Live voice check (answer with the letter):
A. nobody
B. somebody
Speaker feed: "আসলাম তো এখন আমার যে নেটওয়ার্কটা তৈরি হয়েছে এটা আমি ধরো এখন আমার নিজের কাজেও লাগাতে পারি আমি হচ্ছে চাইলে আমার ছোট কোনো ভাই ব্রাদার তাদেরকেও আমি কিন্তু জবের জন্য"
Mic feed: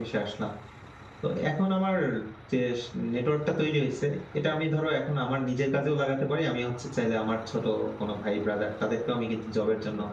A